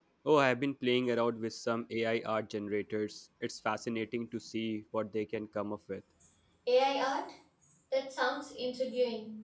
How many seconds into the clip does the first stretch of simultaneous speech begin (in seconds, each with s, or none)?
none